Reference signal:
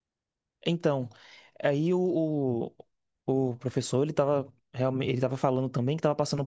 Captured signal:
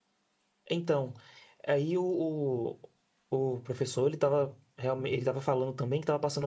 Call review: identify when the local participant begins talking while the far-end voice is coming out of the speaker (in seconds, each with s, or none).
none